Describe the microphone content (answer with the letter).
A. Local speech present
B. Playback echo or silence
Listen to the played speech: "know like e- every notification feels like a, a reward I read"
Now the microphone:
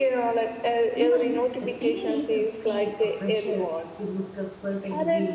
A